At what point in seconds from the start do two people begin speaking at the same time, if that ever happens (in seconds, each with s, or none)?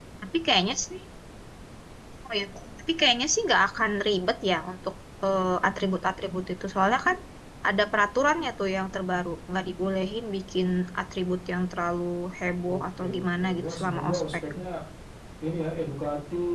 12.6 s